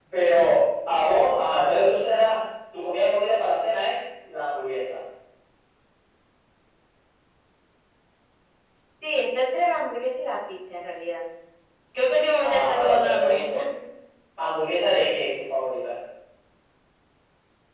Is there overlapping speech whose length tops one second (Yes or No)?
Yes